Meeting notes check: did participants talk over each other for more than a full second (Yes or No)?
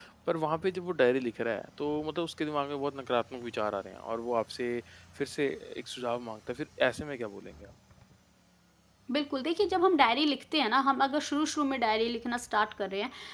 No